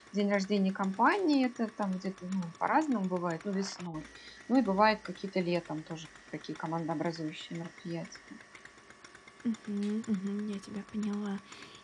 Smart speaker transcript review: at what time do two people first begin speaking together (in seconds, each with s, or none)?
none